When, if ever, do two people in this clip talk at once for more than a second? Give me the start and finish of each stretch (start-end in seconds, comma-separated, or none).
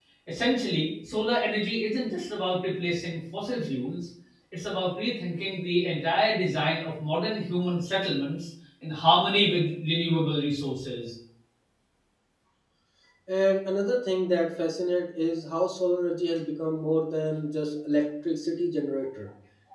none